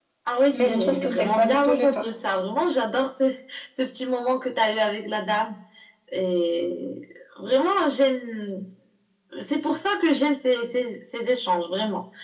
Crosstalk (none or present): present